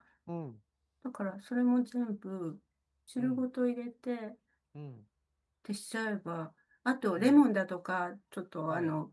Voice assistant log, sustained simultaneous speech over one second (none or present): none